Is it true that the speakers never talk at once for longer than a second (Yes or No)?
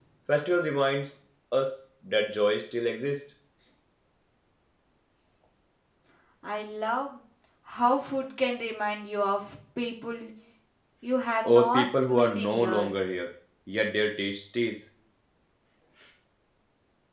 No